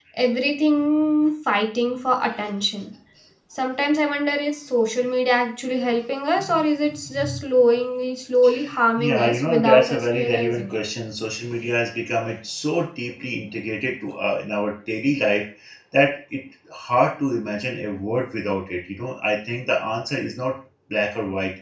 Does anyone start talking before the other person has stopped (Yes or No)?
Yes